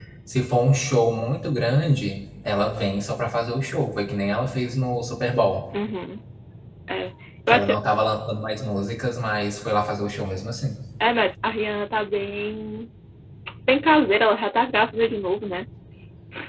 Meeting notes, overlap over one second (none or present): none